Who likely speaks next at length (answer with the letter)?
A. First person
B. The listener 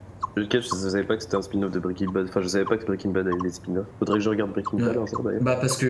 B